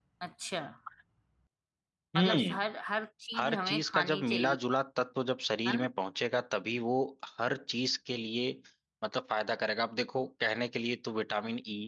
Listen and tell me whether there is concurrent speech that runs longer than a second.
Yes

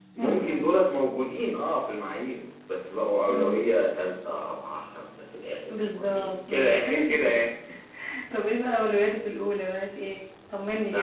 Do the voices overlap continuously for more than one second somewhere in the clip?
Yes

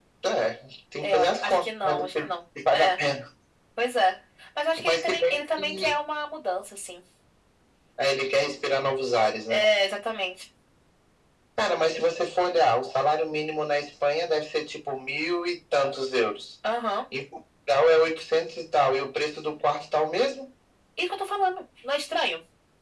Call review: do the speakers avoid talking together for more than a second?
No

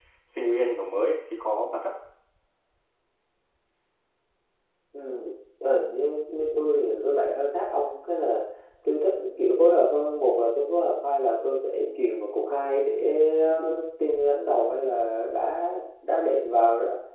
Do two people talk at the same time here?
No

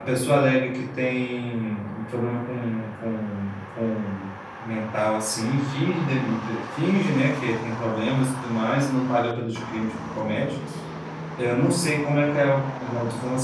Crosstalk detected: No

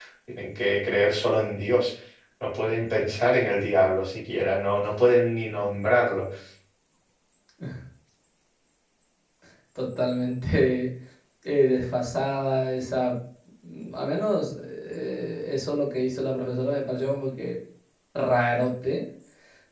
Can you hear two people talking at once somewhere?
No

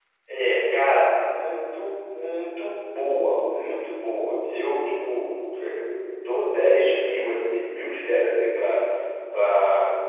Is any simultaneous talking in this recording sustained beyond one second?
No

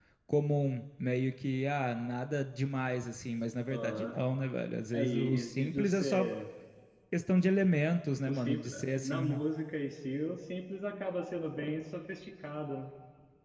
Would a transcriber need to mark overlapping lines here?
Yes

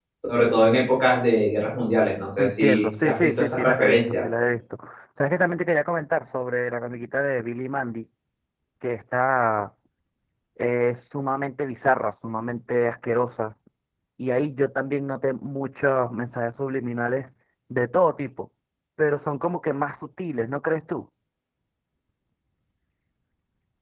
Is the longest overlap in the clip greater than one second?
Yes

